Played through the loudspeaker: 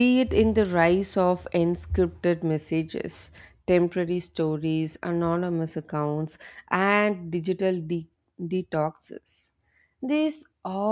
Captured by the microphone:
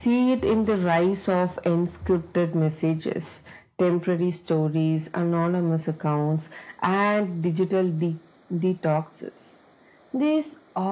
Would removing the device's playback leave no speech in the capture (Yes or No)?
Yes